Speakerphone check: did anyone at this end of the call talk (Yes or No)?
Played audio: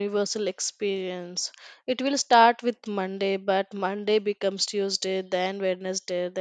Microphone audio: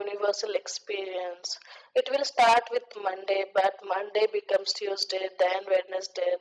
No